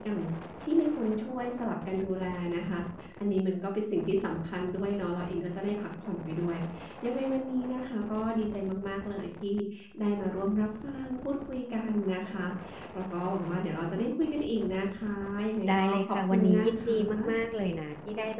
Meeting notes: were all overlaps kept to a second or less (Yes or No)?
No